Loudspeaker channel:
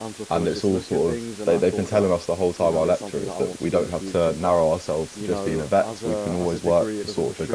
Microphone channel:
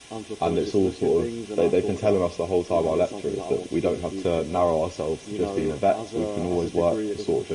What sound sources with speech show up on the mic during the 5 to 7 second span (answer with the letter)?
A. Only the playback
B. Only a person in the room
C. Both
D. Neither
A